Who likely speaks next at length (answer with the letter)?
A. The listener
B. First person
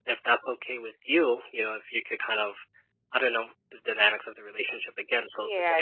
A